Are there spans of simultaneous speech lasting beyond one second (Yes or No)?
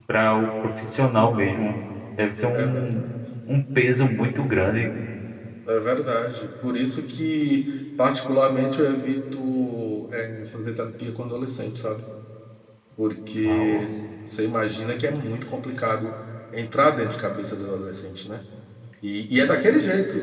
No